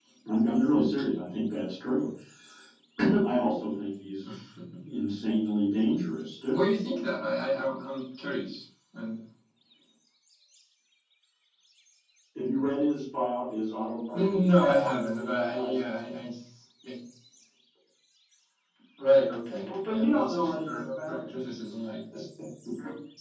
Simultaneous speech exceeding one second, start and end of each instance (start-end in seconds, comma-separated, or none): 14.1-16.1, 19.6-21.2